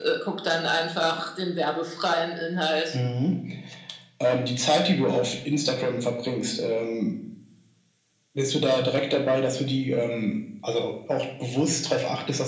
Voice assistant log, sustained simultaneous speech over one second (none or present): none